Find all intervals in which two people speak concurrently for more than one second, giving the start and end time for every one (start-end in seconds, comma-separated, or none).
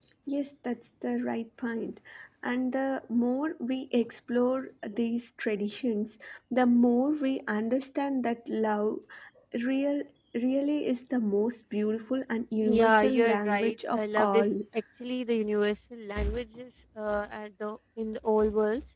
12.6-14.4